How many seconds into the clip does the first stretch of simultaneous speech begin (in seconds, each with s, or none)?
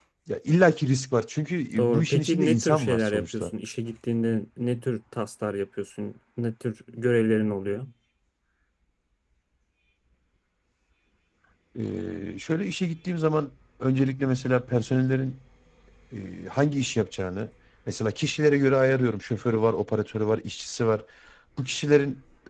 1.8 s